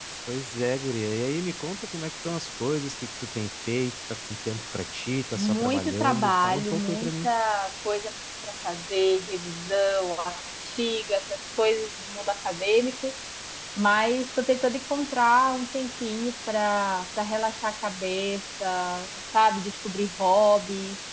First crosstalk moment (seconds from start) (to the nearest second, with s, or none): 5 s